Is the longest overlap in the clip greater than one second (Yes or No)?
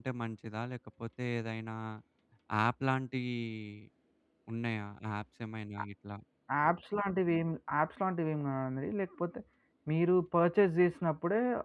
No